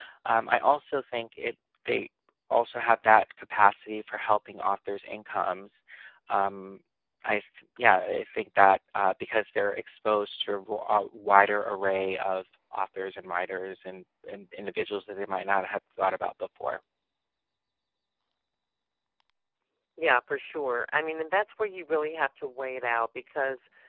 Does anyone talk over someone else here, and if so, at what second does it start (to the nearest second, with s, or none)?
none